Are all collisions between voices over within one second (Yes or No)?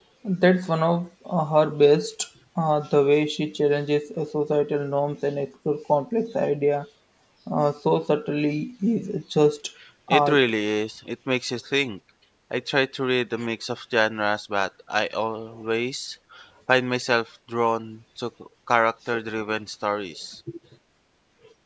Yes